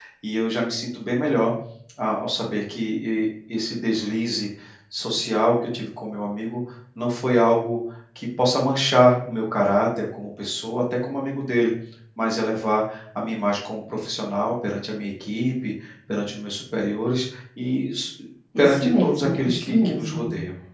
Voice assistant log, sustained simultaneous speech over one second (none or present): present